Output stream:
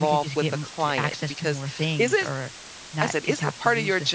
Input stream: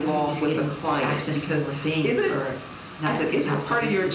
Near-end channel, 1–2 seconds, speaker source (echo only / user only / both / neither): echo only